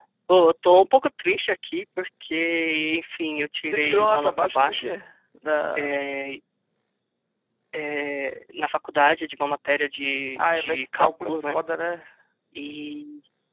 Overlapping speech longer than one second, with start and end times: 3.7-4.9, 10.4-11.6

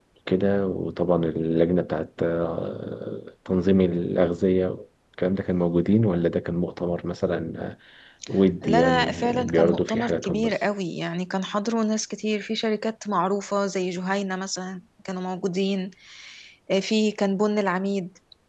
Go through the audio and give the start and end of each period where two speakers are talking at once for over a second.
8.6-10.5

